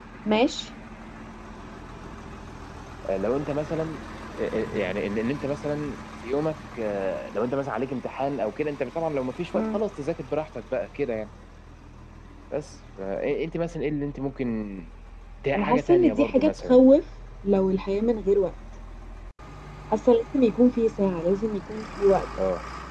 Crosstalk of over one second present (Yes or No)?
Yes